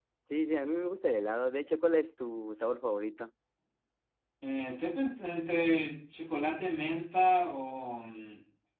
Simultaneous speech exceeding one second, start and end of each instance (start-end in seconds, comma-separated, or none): none